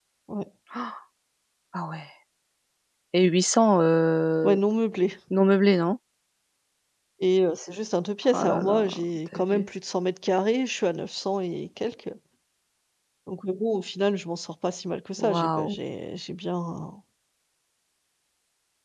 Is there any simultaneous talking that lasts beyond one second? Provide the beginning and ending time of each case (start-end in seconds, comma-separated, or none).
8.3-9.7